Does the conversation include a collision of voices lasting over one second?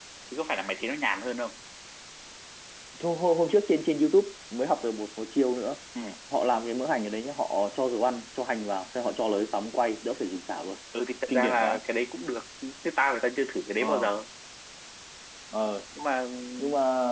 No

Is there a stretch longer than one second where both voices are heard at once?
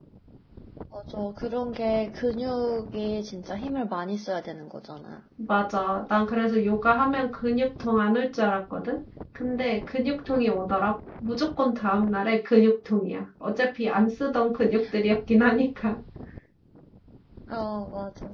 No

